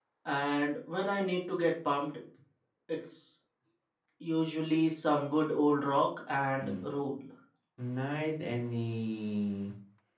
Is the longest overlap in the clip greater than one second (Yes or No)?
No